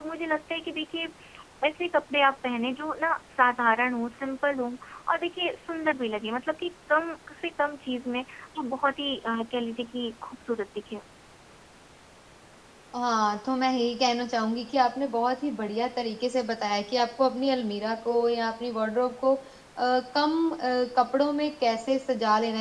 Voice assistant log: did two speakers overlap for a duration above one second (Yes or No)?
No